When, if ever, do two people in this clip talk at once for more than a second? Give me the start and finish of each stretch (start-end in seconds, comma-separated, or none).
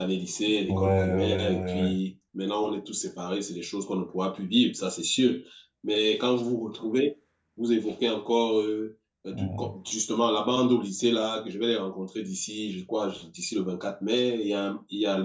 0.7-2.0